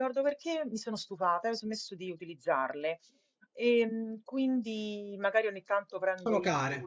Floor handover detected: No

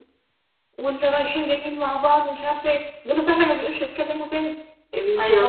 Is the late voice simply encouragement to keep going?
No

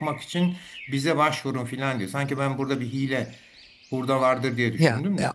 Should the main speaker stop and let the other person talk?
Yes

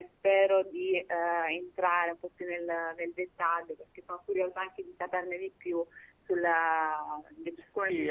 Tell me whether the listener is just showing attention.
No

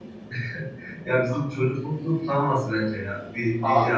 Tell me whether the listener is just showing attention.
No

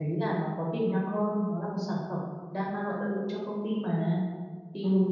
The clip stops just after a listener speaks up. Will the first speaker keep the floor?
Yes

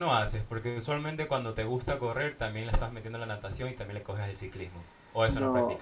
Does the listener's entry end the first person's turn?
Yes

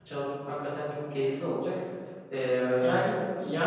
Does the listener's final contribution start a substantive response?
Yes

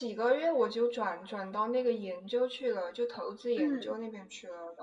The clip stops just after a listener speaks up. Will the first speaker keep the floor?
Yes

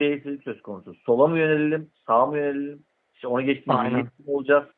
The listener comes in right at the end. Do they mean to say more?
No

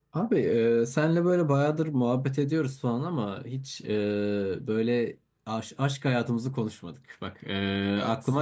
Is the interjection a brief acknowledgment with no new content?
Yes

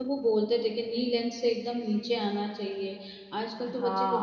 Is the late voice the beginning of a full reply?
Yes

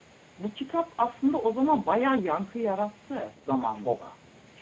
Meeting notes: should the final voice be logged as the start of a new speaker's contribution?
Yes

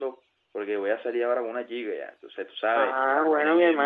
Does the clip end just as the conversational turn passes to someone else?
Yes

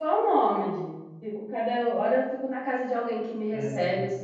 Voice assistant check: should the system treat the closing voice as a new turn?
Yes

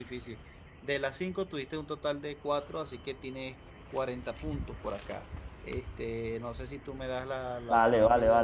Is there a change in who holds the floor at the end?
Yes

